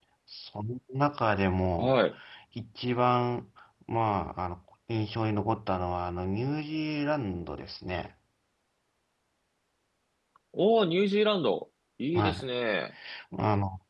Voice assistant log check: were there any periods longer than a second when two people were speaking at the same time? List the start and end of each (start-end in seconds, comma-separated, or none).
none